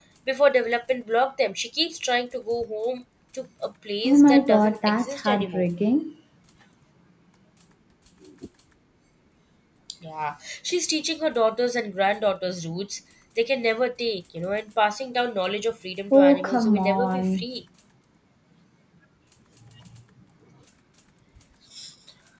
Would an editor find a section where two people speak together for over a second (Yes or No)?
Yes